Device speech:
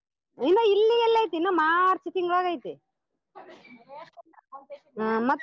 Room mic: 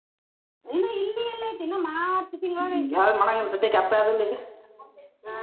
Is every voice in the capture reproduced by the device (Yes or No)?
No